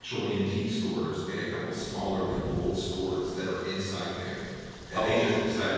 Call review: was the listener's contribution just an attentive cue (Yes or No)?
Yes